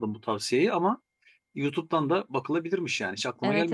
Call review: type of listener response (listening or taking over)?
taking over